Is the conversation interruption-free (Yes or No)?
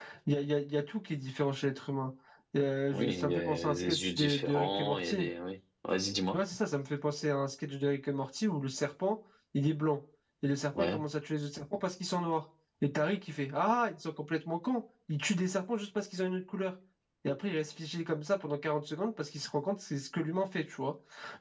No